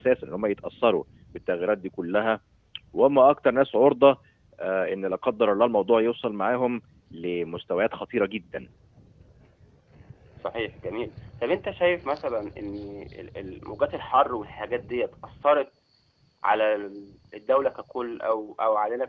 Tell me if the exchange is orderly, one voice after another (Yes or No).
Yes